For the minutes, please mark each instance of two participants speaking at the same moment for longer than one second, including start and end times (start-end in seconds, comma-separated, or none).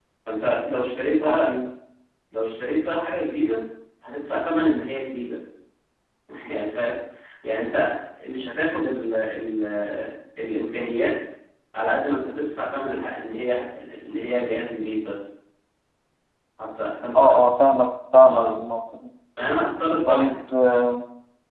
none